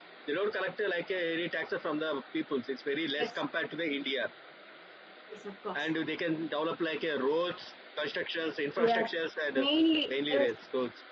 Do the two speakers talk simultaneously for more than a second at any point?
No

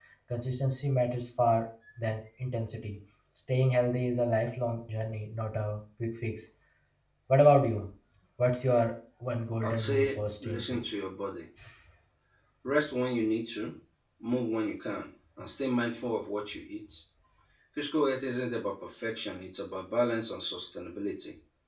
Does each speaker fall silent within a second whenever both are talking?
No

